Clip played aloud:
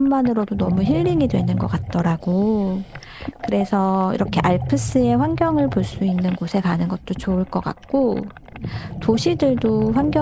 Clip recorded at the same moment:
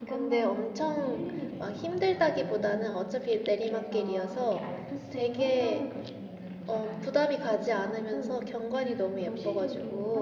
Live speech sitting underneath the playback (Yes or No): No